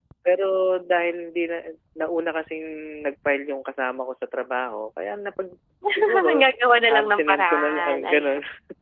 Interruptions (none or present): present